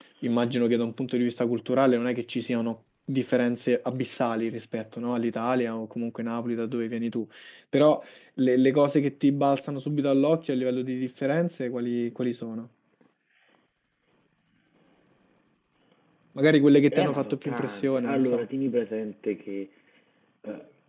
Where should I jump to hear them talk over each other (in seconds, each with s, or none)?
16.9 s